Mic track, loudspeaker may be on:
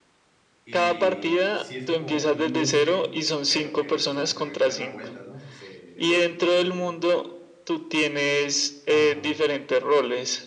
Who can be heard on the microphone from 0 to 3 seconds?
both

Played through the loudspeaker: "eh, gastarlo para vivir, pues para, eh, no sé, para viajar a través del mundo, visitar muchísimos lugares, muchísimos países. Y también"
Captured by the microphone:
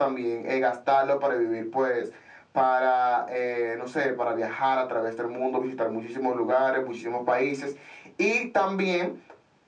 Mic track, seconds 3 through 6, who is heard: echo only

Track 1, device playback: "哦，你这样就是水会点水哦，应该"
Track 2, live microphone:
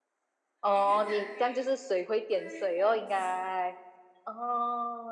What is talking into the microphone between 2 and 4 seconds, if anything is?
both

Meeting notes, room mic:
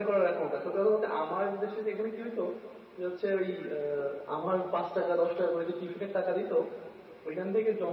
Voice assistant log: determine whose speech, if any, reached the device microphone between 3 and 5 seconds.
echo only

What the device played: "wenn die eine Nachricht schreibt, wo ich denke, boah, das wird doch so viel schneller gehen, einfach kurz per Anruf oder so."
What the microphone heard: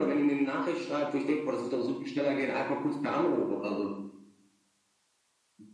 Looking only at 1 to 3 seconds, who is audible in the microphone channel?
echo only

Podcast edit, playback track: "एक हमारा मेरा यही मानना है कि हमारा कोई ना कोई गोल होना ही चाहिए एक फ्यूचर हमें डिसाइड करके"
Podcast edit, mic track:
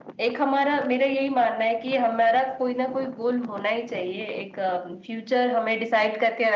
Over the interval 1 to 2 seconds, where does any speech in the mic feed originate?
echo only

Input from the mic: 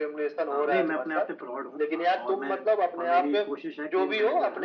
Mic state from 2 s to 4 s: both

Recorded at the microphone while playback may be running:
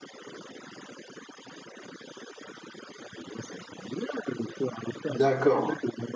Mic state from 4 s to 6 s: both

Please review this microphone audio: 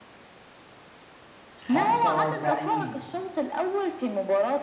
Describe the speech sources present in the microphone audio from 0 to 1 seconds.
neither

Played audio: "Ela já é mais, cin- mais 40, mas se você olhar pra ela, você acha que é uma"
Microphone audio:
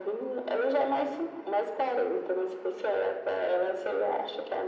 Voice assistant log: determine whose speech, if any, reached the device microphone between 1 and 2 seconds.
echo only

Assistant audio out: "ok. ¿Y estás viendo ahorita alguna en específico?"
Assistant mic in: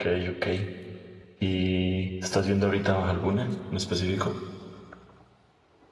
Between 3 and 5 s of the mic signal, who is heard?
echo only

